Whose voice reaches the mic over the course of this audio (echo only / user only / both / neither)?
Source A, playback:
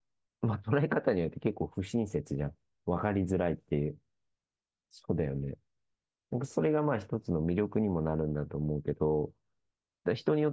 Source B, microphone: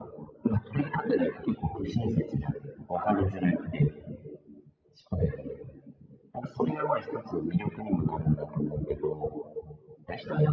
echo only